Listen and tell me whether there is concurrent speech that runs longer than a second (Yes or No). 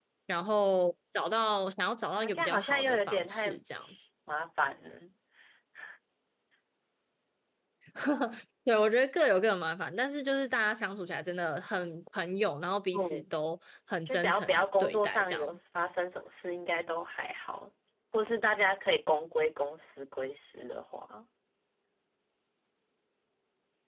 Yes